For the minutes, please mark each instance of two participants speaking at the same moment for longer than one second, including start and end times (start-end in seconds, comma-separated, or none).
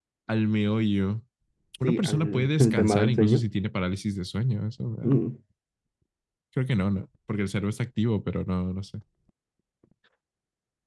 1.8-3.4